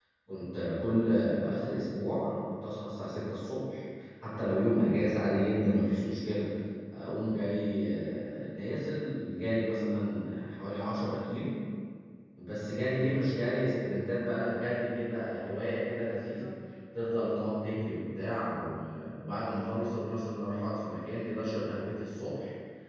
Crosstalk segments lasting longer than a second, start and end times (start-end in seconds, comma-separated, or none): none